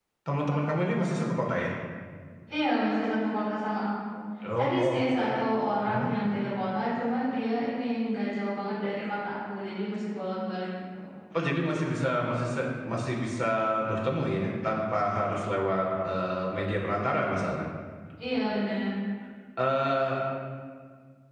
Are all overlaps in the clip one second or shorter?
Yes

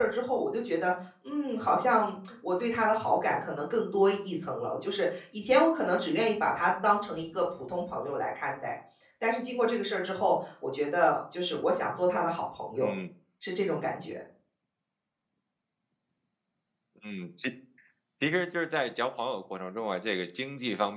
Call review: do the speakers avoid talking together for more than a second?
Yes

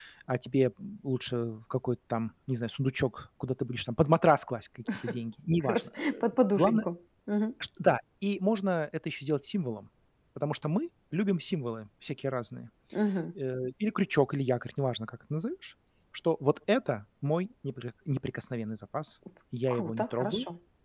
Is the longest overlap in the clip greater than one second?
Yes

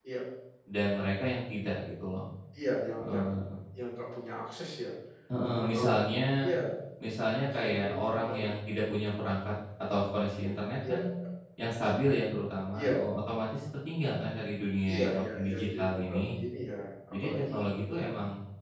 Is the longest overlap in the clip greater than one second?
Yes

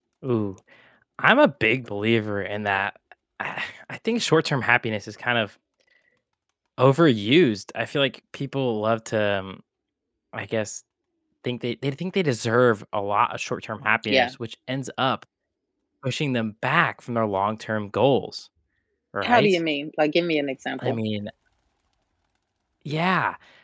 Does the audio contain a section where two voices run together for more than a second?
No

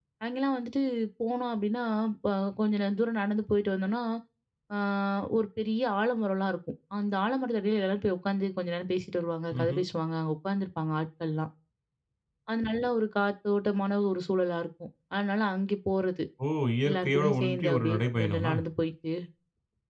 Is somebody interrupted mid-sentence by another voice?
Yes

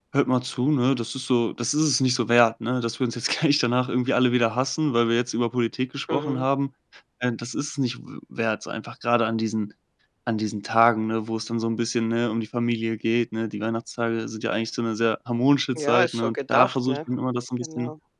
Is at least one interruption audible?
Yes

